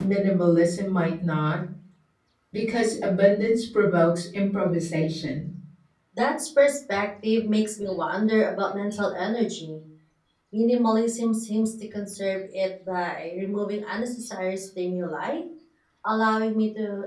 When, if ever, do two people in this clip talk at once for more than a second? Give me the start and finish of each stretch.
none

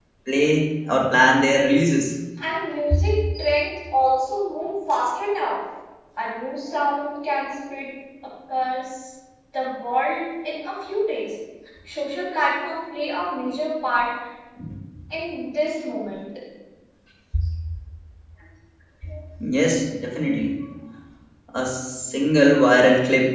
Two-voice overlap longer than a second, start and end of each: none

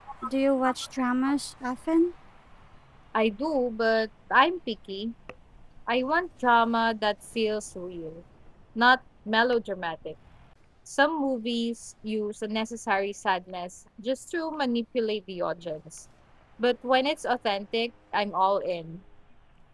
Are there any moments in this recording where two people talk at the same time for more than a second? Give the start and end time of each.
none

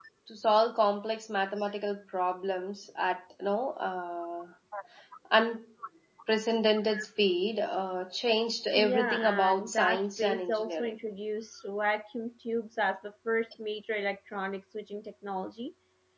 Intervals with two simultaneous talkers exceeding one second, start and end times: 8.7-10.9

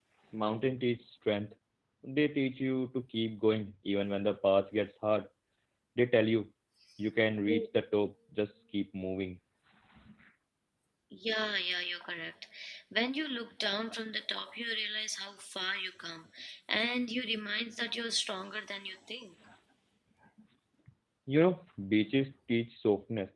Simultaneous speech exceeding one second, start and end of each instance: none

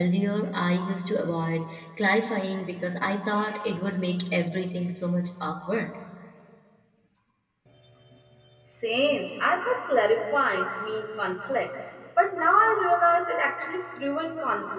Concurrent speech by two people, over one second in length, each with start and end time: none

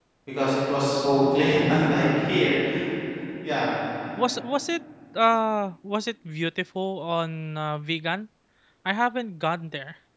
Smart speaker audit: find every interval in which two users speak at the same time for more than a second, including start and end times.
none

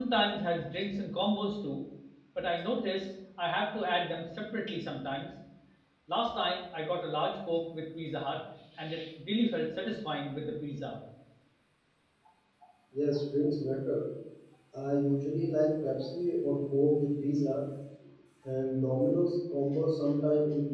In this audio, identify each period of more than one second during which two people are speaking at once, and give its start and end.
none

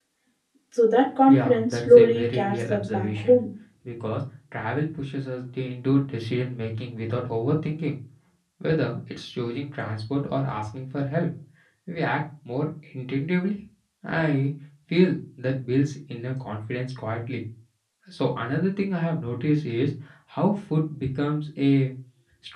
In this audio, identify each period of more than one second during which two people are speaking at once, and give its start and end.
1.3-3.4

